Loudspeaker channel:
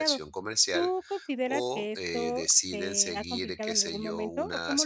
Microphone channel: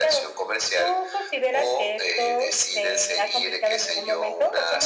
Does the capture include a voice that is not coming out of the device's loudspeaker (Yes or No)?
No